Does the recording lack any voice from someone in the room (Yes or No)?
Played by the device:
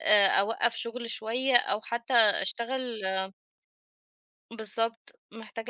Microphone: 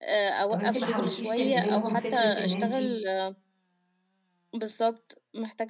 No